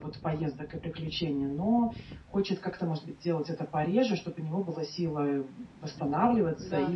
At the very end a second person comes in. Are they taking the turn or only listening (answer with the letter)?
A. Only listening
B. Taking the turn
A